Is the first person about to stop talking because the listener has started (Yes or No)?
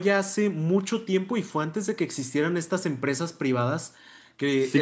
Yes